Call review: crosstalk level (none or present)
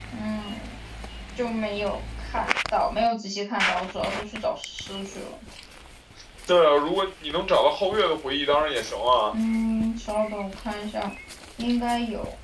none